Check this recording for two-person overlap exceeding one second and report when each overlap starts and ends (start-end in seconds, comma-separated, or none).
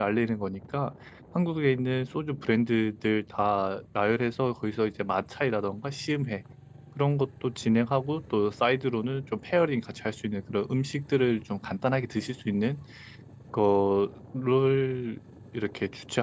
none